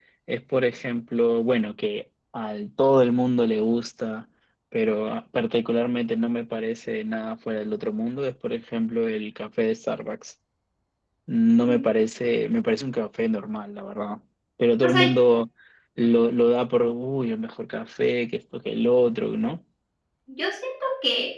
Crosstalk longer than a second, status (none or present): none